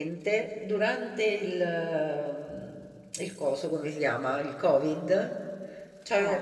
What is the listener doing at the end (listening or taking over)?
listening